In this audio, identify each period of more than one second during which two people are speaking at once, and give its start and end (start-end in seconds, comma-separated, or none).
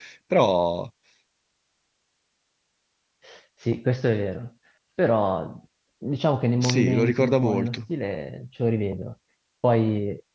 6.6-7.8